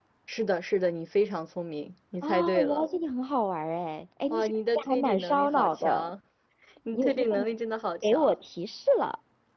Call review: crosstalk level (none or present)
present